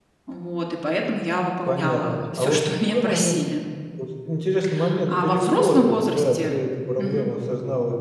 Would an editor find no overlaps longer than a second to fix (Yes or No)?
No